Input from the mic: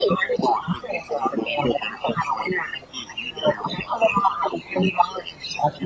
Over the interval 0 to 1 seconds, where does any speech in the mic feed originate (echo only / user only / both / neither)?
echo only